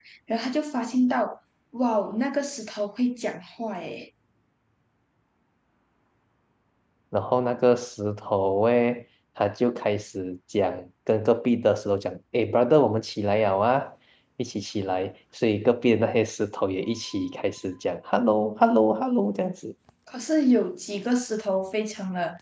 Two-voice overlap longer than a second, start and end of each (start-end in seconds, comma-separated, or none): none